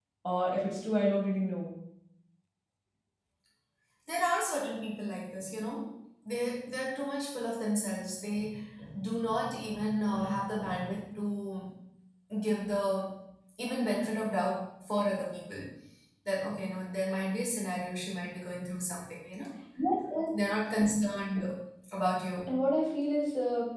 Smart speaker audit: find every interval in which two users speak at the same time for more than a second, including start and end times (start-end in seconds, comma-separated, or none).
none